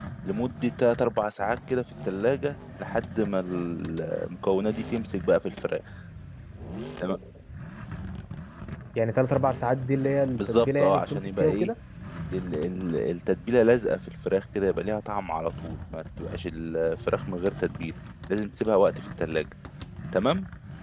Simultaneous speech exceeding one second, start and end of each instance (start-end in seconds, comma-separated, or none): 10.3-11.7